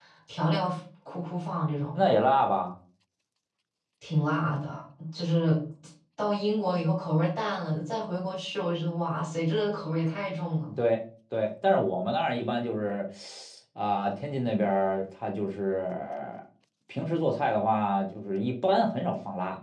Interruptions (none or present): none